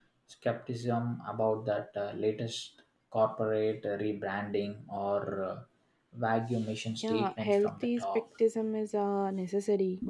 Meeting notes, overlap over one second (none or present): present